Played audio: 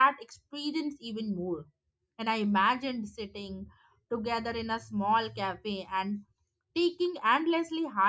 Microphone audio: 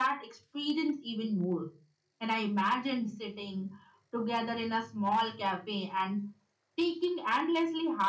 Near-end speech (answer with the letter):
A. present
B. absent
B